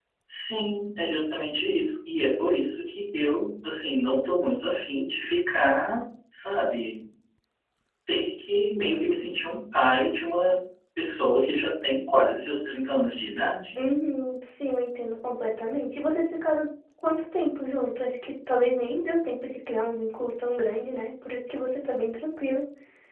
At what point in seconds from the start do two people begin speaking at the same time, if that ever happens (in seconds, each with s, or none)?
none